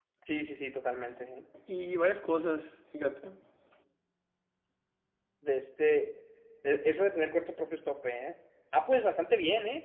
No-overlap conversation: Yes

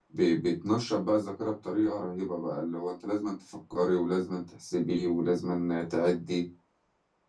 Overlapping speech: No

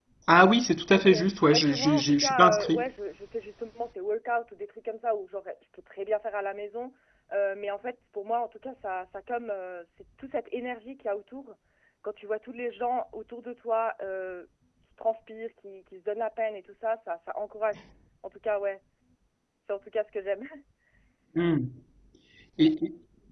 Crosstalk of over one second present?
Yes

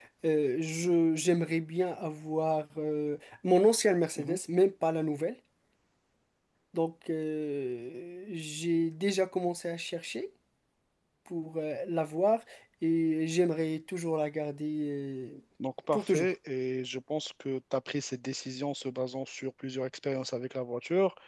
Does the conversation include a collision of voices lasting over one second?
No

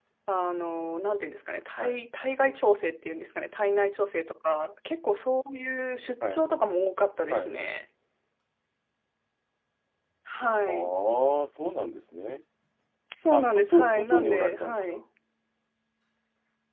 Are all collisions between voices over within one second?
No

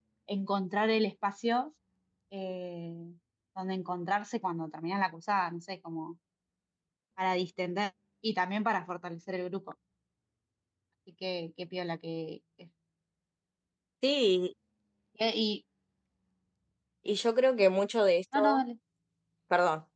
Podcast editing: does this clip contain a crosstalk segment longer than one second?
No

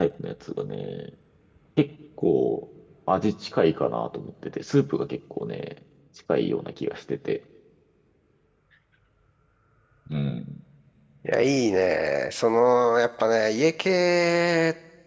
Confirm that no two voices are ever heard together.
Yes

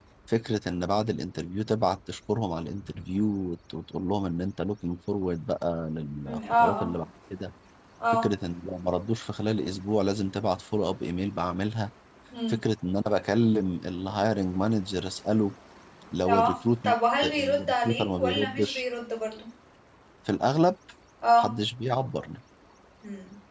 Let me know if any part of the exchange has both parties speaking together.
Yes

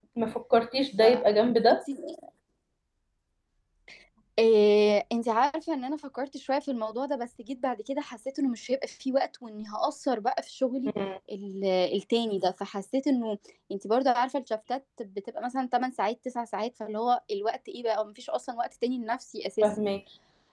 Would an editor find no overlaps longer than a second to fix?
Yes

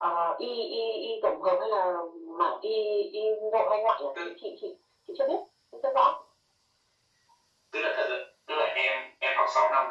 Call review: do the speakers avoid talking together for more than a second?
Yes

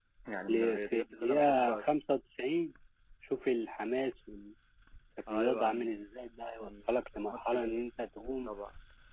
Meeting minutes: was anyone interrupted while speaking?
Yes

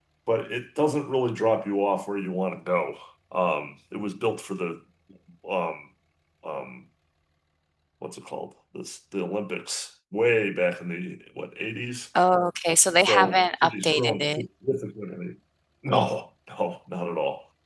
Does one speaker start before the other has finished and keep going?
Yes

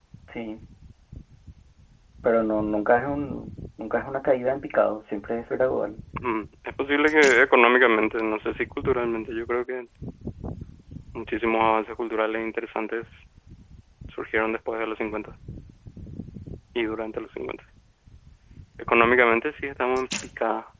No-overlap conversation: Yes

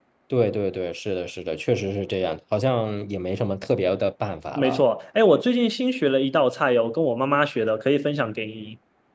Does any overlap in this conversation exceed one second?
No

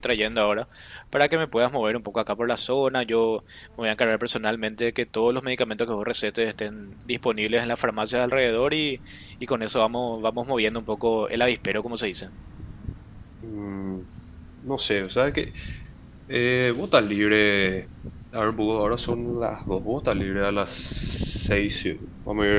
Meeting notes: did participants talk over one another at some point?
No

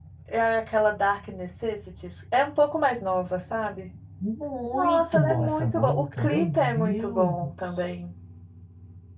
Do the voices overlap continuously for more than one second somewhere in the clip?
Yes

